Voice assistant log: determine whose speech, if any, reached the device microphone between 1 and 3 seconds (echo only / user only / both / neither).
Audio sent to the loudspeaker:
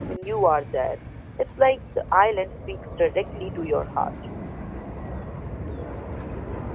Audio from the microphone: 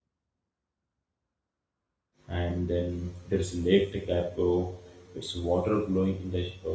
user only